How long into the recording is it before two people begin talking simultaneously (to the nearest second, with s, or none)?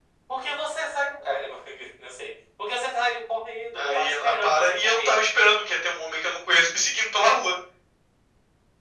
4 s